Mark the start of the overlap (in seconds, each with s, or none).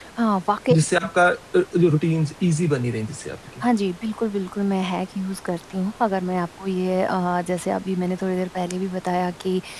none